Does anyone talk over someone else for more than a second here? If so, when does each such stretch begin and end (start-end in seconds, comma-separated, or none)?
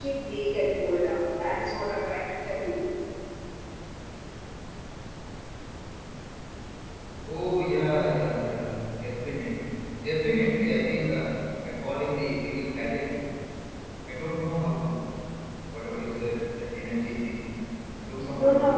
none